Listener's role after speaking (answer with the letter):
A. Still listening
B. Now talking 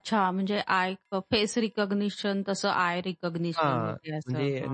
B